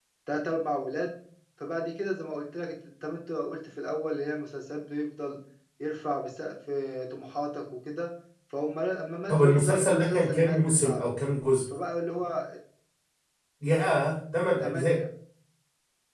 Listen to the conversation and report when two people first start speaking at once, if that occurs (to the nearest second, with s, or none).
9 s